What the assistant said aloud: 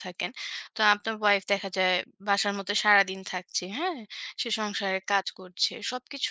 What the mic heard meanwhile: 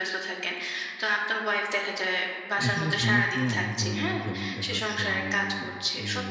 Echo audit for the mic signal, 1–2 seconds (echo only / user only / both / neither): echo only